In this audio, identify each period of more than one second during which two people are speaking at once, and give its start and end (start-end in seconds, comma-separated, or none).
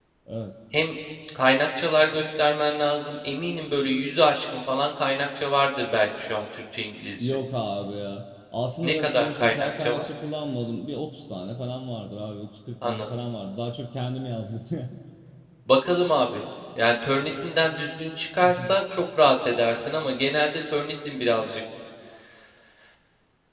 8.8-10.0